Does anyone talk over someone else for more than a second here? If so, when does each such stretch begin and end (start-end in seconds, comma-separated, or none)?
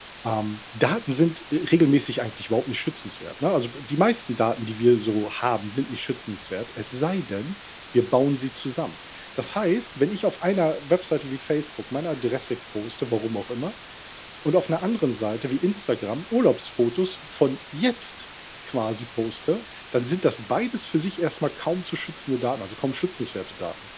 none